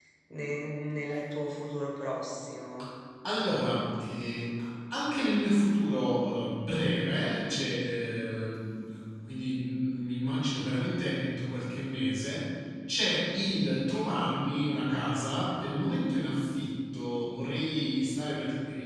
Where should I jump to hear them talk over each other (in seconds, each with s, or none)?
none